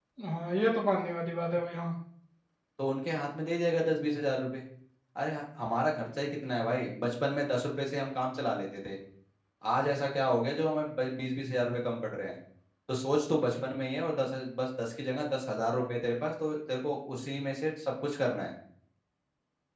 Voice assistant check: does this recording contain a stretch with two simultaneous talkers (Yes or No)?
No